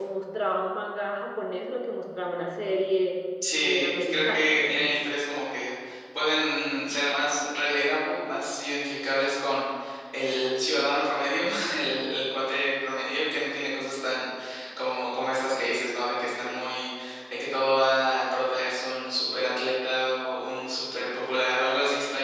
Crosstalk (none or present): present